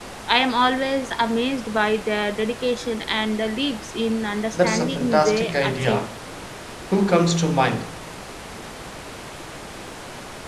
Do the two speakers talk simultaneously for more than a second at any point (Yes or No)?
Yes